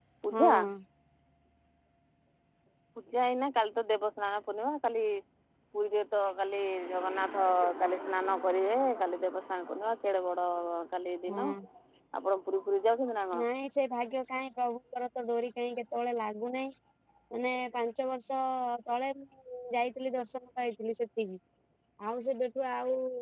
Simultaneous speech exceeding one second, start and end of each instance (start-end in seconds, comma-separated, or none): none